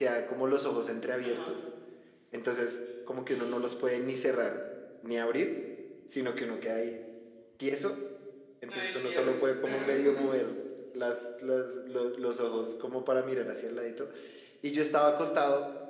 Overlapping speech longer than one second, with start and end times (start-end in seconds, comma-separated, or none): 8.7-10.0